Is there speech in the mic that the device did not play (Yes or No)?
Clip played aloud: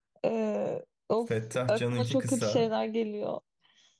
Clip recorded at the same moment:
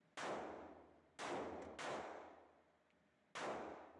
No